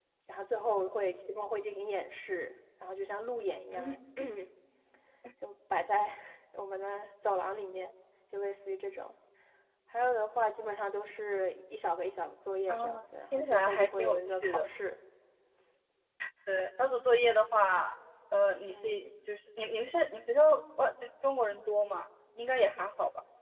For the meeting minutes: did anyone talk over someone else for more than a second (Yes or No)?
Yes